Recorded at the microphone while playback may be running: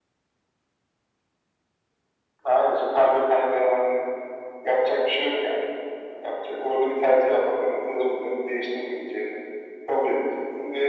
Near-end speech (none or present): none